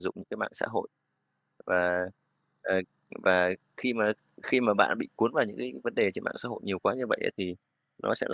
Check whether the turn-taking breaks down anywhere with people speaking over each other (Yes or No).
No